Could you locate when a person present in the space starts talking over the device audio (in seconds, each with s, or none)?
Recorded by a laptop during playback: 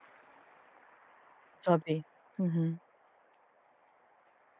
1.6 s